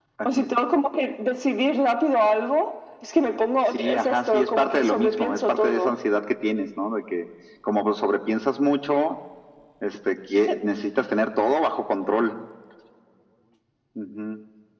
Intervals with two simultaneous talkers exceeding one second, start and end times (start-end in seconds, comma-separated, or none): 3.7-5.8